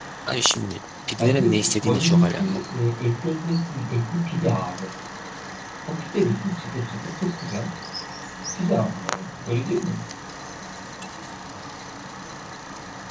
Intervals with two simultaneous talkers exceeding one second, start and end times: 1.2-2.6

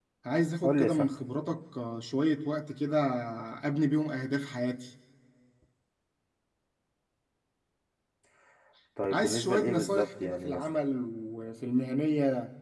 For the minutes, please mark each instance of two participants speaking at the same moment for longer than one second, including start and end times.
9.1-10.6

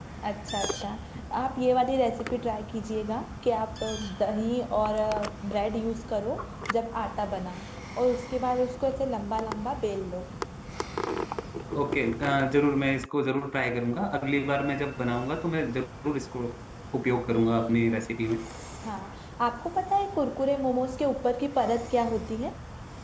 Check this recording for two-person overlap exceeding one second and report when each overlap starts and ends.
none

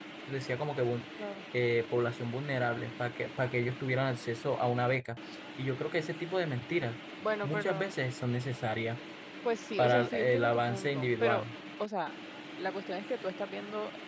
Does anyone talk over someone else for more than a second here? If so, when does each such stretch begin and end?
9.8-11.4

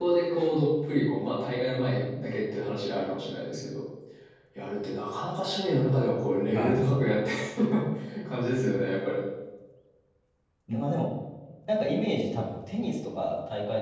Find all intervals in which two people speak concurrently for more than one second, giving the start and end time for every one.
none

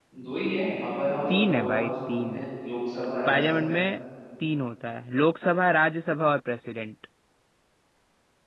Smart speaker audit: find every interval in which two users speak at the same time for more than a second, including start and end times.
1.3-2.5

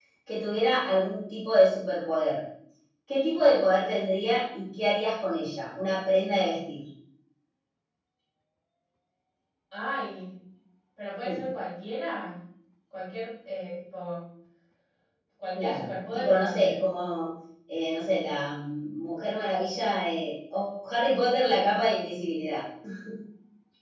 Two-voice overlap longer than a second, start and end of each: 15.5-16.9

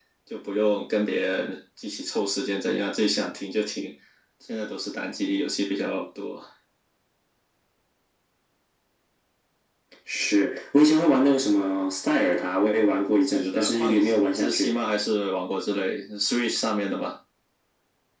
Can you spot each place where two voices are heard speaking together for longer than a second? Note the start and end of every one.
13.2-14.8

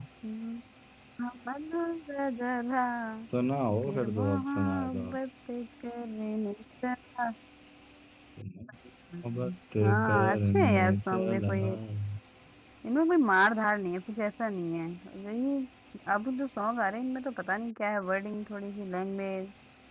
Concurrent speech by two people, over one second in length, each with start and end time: 3.9-5.2, 9.8-11.5

